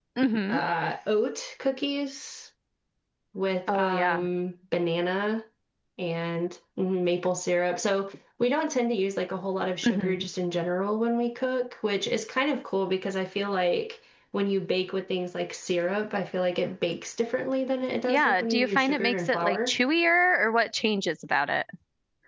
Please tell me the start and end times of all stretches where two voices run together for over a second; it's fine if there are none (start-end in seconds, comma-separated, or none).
18.1-19.8